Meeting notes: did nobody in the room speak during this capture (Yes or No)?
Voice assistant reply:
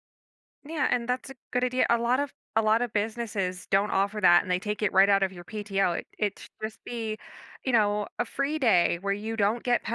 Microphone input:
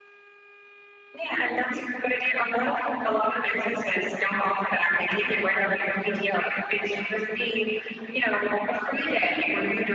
No